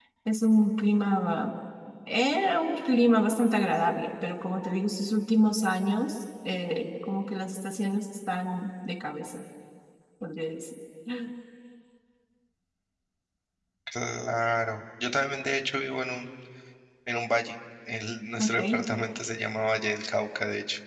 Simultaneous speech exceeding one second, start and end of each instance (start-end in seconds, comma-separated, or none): none